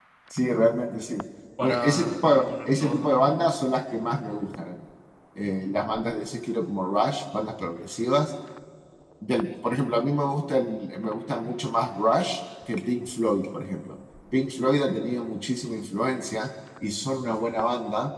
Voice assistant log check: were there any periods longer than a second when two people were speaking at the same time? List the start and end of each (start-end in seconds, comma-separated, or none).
1.6-3.1